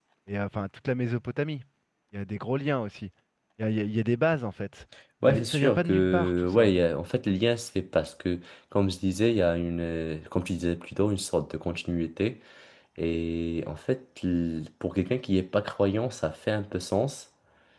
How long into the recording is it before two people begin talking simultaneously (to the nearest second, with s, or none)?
5 s